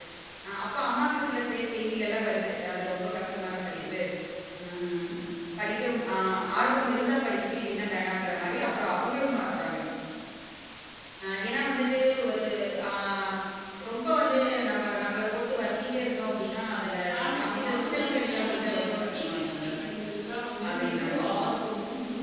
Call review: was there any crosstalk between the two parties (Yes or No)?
Yes